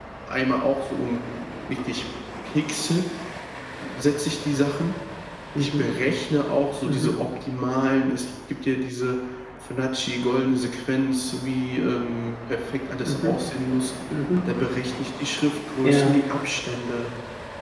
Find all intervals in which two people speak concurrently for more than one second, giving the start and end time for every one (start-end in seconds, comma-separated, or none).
none